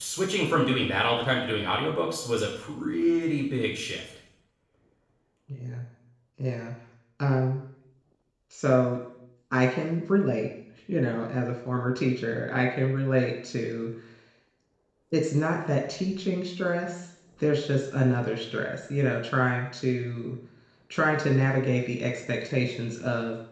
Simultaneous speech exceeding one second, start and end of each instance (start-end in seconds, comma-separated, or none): none